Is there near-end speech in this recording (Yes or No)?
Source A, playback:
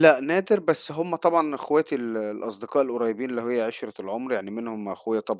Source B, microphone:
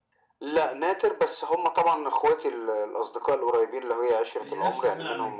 Yes